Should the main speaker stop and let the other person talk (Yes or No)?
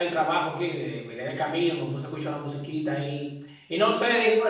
No